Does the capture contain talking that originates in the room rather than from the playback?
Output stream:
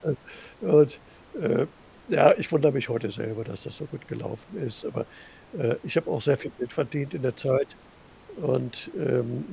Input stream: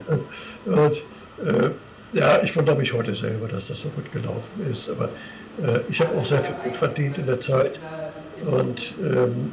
Yes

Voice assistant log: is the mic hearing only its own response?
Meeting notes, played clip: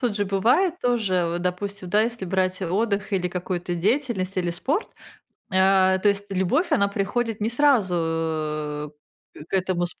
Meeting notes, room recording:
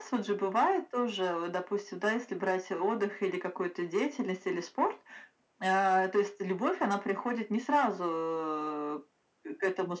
Yes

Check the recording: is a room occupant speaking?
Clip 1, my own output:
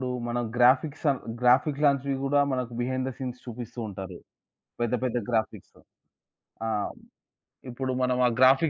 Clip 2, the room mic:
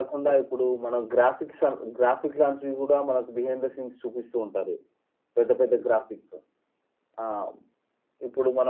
No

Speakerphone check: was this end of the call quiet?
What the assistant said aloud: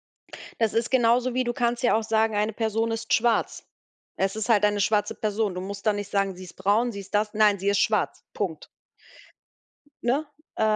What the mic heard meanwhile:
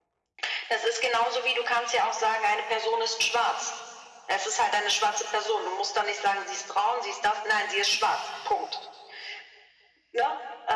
Yes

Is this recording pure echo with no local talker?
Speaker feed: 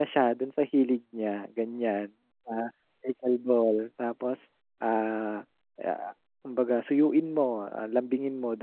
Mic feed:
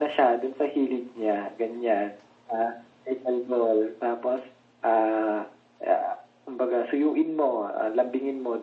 Yes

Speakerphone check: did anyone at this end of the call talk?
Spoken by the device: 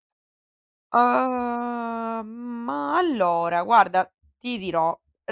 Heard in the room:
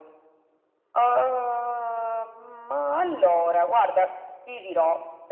No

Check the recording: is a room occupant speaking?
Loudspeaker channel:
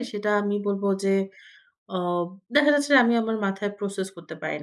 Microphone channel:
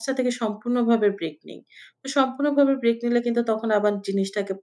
Yes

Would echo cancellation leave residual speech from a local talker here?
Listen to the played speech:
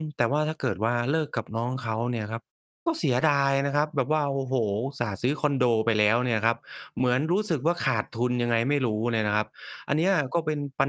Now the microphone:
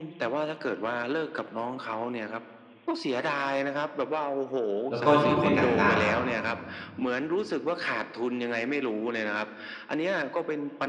Yes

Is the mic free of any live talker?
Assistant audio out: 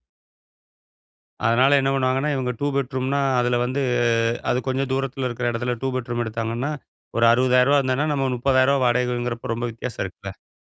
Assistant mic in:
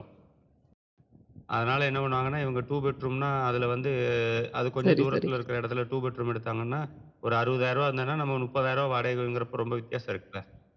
No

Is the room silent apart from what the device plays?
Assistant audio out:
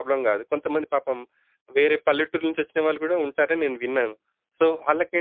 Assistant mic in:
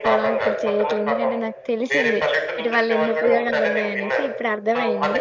No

